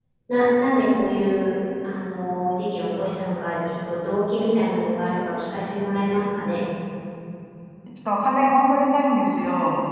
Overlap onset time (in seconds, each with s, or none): none